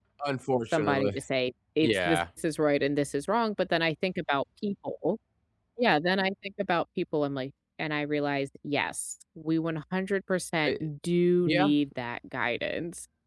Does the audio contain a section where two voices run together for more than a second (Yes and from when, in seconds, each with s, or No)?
No